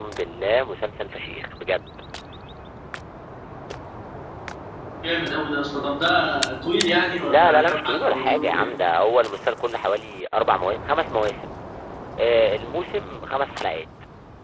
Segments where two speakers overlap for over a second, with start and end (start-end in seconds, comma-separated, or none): 7.2-8.7